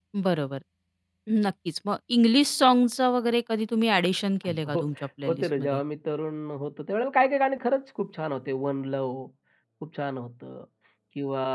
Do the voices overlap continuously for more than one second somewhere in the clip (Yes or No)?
No